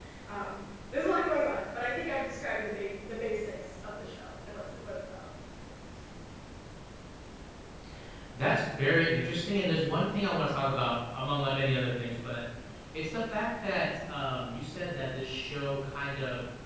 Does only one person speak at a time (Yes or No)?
Yes